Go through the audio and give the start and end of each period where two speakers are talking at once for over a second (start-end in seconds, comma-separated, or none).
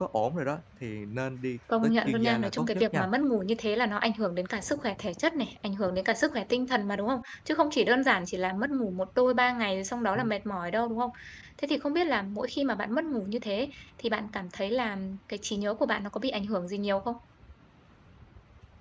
1.8-3.1